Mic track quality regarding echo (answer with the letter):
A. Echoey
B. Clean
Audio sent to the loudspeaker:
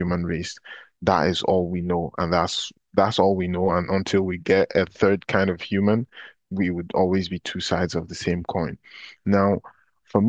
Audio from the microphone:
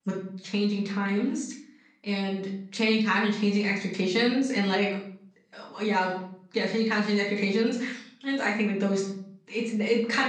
B